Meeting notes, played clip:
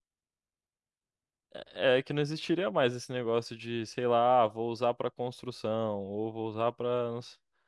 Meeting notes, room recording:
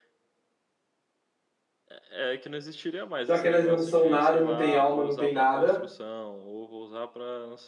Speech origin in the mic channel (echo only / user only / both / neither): both